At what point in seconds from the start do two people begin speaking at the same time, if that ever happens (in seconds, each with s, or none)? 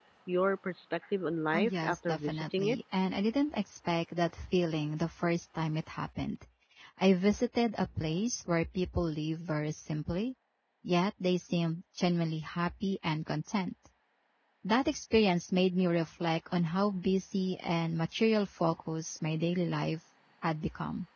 1.5 s